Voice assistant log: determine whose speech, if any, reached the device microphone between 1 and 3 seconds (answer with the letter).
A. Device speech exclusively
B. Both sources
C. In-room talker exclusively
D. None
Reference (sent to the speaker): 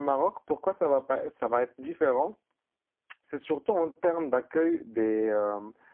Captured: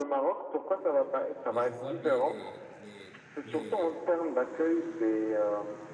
B